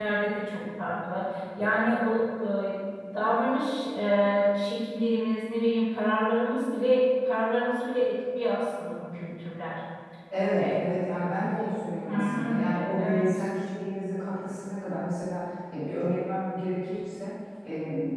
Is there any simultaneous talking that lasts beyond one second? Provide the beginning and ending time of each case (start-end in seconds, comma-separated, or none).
12.1-13.5